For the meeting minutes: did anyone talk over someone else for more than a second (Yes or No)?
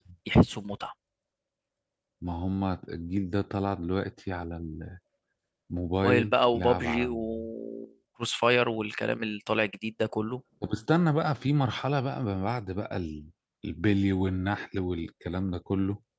Yes